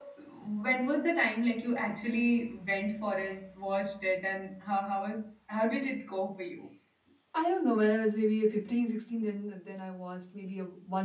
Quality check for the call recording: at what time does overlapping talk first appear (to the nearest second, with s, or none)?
none